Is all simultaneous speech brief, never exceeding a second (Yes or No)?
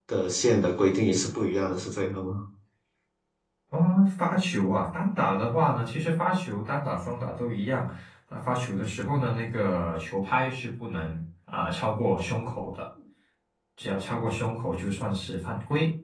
Yes